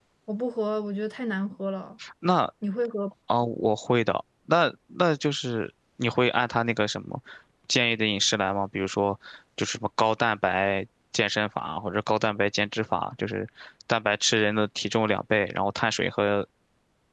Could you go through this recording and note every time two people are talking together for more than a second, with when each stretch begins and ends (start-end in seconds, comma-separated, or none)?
none